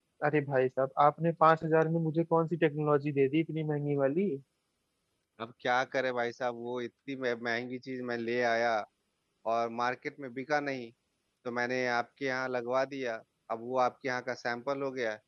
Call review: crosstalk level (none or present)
none